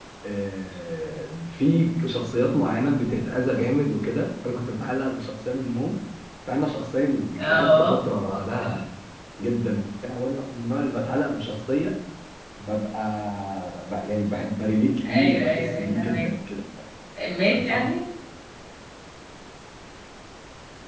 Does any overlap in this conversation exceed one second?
Yes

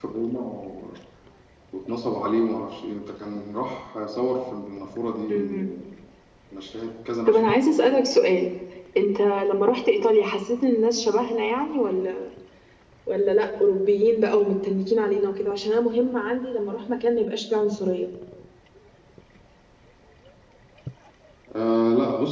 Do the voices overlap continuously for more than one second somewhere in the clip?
No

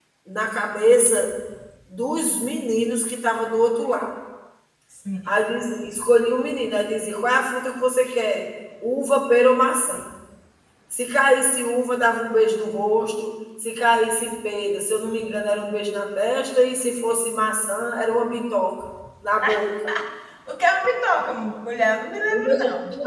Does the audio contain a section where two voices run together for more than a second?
No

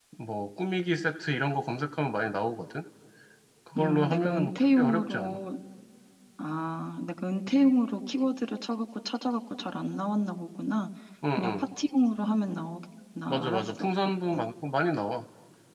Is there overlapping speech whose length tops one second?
Yes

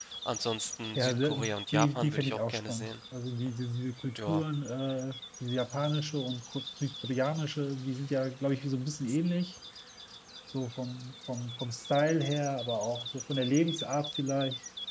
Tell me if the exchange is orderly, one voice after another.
No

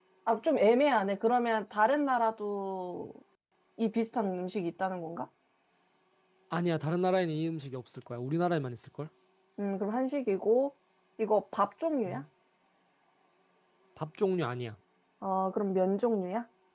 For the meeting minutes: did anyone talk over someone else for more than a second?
No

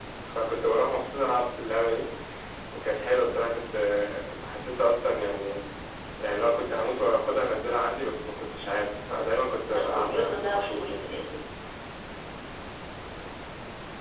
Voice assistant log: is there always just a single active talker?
No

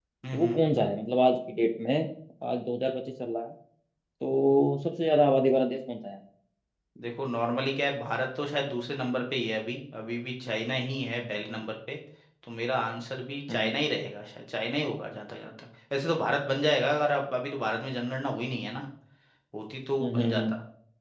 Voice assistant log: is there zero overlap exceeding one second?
Yes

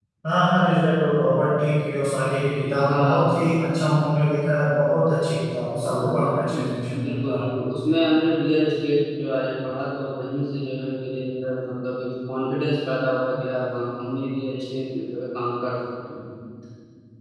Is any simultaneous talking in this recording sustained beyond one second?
Yes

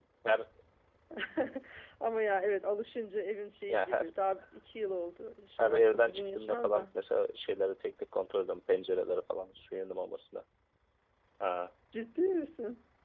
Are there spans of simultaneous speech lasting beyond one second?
Yes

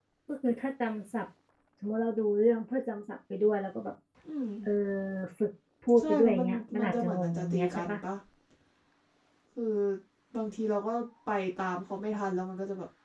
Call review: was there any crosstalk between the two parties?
Yes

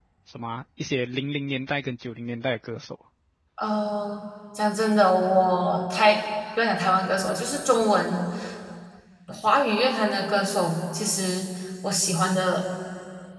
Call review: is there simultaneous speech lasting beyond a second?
No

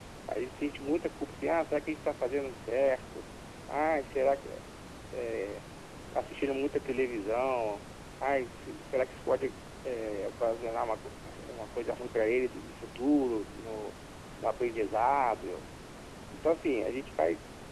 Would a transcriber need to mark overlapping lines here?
No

